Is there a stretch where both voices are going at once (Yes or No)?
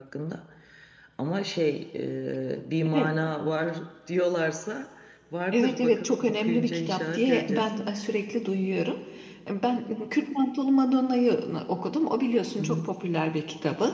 Yes